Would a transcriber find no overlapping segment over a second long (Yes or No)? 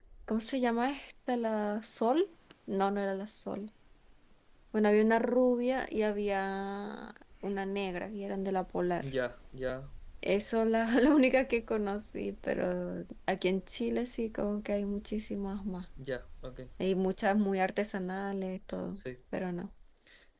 Yes